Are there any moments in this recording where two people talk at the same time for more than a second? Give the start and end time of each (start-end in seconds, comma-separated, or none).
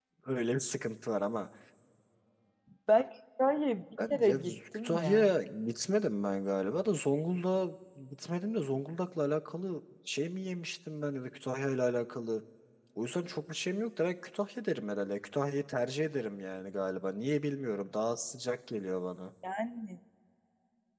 4.1-5.3